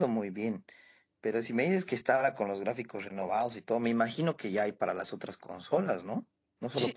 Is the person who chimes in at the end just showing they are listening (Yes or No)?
No